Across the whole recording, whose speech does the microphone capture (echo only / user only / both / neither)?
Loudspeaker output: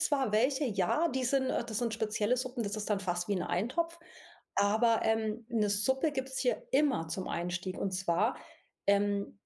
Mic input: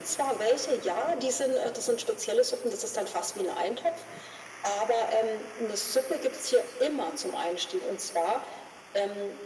echo only